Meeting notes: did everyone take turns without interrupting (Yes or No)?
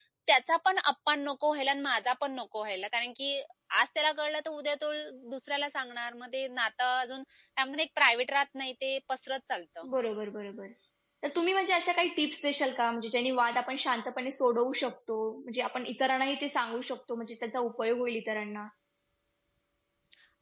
Yes